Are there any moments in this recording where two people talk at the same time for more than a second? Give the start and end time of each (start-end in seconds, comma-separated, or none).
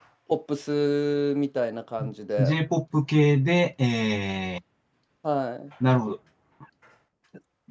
none